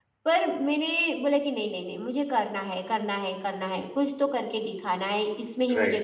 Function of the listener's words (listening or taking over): listening